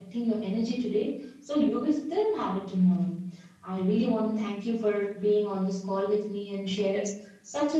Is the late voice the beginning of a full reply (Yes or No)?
No